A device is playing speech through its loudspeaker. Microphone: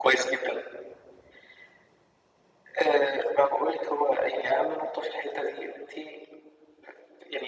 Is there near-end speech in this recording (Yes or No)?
No